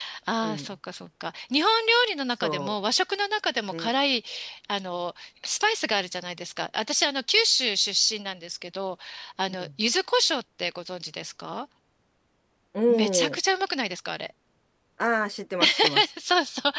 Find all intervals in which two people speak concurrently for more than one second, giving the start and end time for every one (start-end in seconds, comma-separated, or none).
none